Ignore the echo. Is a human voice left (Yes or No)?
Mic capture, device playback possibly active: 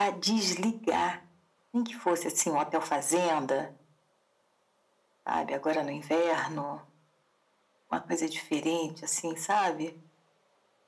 No